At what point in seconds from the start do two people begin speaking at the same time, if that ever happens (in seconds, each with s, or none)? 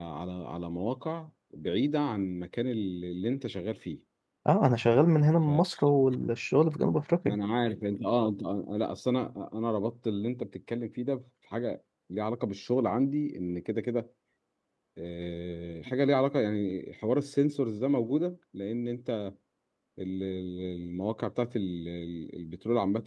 none